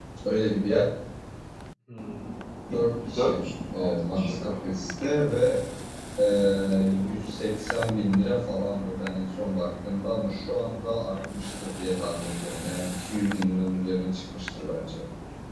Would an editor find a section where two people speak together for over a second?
No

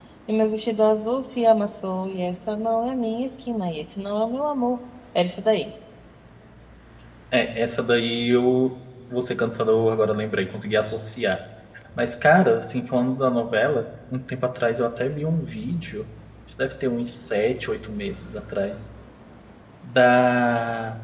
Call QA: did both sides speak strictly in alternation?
Yes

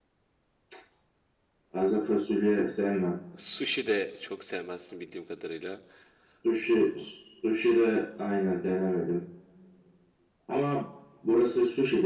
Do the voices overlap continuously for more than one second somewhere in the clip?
No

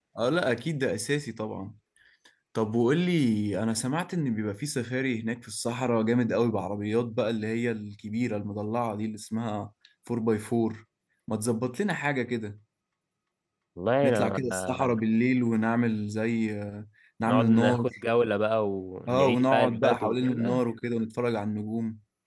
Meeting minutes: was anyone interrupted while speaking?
Yes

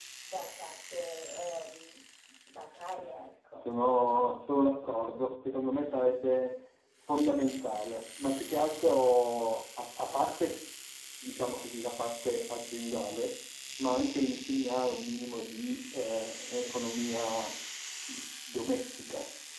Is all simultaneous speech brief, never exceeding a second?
Yes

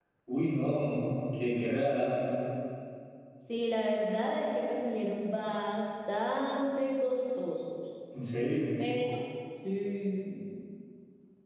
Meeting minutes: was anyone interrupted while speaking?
No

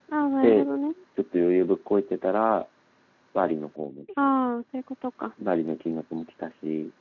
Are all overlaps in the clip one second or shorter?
Yes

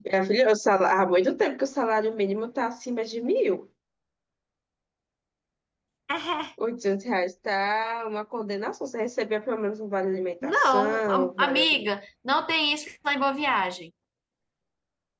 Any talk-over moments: Yes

